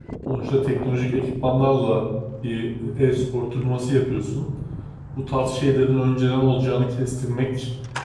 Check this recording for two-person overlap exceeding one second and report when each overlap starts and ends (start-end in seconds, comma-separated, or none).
none